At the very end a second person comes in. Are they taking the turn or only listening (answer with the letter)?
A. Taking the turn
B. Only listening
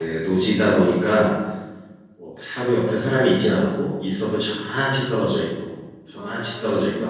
B